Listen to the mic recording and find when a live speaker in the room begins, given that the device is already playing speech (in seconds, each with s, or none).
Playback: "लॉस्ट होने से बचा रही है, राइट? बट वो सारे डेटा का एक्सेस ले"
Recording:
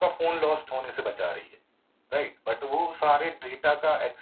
none